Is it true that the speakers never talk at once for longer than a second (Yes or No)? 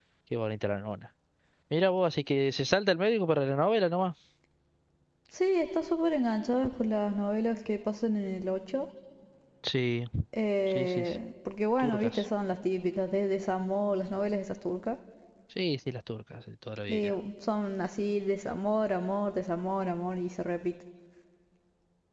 Yes